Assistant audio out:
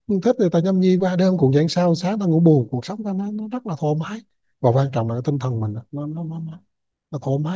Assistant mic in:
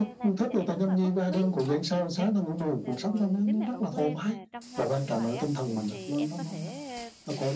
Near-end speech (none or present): present